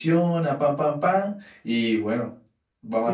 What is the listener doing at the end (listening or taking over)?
taking over